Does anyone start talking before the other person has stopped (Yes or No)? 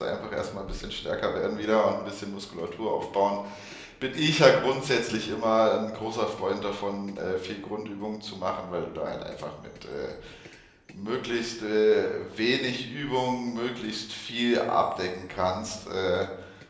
No